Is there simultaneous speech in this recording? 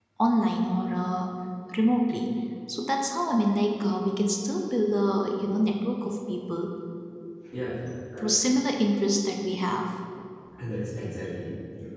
No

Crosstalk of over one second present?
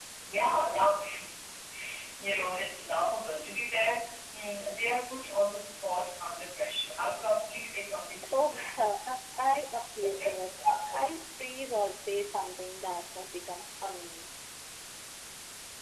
No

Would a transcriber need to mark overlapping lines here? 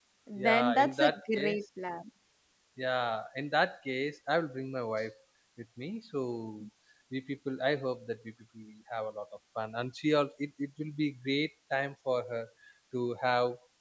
Yes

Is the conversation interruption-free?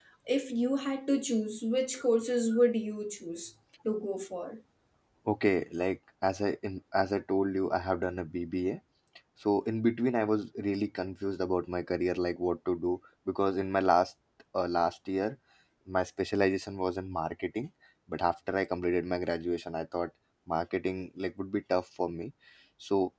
Yes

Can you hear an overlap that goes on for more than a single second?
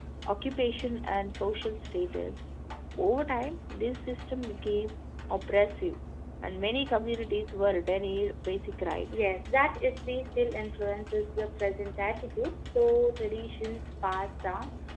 No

